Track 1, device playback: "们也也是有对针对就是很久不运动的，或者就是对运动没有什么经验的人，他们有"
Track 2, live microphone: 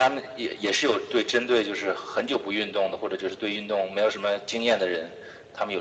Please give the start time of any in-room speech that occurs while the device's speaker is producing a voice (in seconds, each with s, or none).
none